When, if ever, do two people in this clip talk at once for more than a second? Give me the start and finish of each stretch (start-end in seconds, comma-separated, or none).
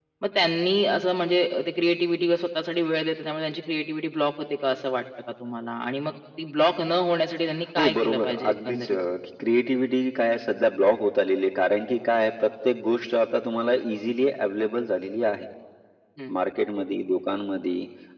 7.8-9.0